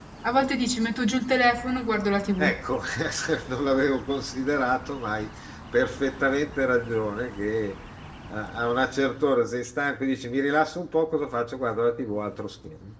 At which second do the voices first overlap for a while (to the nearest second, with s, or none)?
none